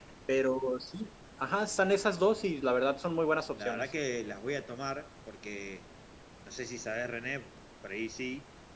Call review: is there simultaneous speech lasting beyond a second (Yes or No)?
No